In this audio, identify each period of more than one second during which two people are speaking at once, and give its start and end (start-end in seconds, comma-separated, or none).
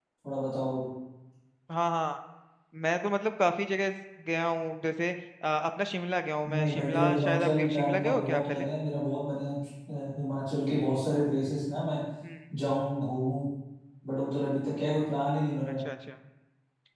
6.5-8.7